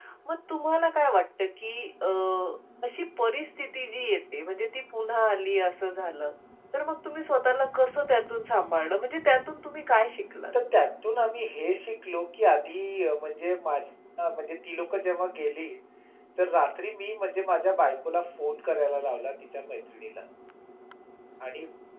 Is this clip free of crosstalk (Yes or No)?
Yes